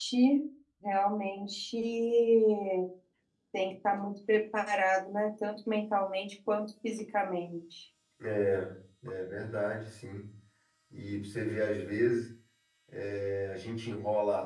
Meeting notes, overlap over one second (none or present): none